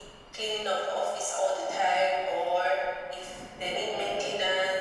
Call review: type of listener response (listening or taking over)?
listening